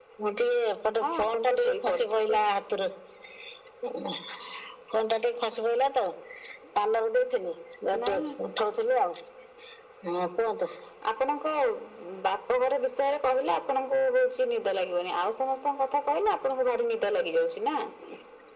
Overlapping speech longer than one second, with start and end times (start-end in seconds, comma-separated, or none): 1.0-2.4